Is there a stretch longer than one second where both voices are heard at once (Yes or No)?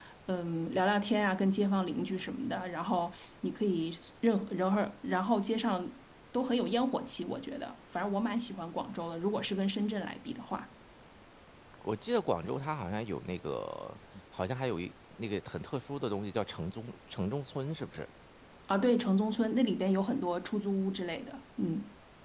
No